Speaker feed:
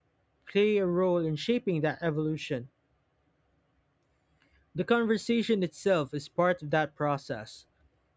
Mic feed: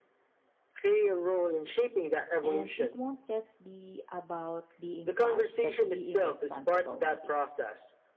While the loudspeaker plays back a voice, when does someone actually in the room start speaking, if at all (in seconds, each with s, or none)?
2.4 s